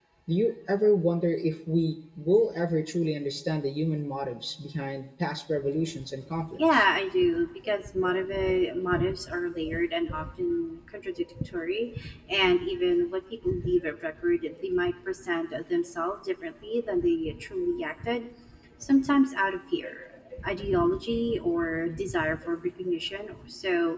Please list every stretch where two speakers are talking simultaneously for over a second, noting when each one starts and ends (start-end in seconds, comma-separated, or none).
none